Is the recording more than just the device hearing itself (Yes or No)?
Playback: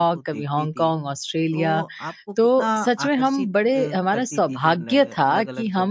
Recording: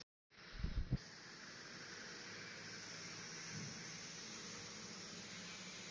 No